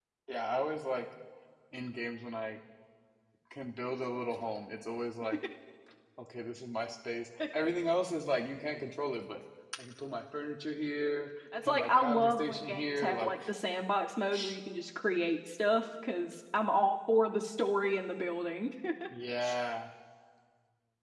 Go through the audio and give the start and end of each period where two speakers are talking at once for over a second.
11.7-13.3

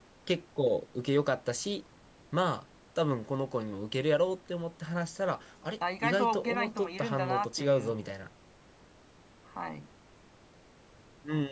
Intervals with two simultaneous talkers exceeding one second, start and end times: 6.0-8.0

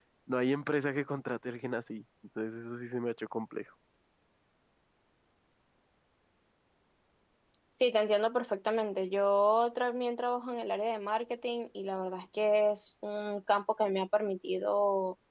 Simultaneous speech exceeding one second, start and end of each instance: none

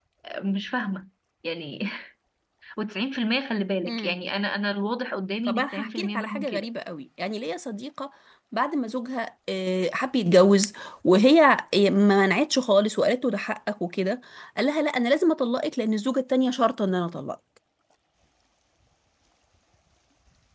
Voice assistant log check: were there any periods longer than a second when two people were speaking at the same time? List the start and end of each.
5.5-6.7

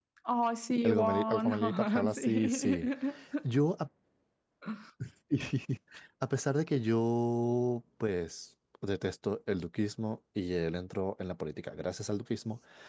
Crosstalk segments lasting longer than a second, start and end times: 0.9-2.8

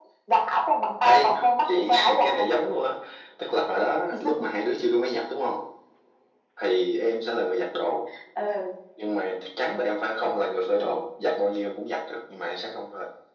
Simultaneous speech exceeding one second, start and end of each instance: 1.0-2.5

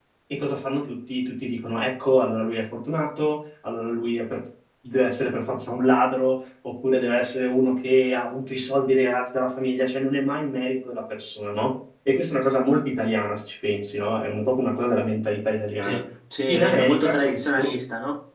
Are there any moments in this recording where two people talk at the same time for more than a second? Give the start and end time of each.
16.5-17.7

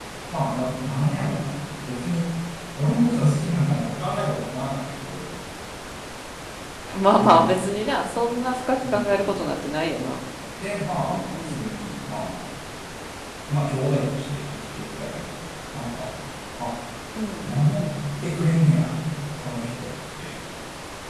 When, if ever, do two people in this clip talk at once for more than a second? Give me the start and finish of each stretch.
none

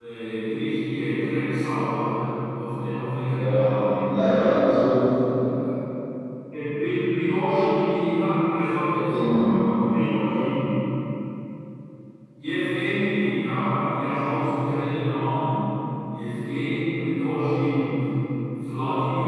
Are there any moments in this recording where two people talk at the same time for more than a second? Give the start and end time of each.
3.4-4.6

